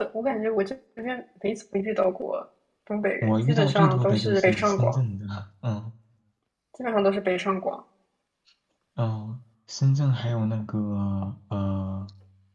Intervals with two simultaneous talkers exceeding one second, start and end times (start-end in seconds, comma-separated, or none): 3.2-5.0